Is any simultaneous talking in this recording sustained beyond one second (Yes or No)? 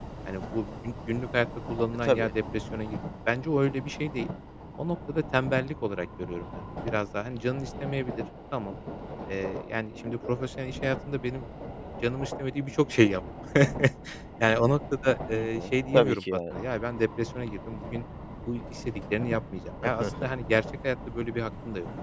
Yes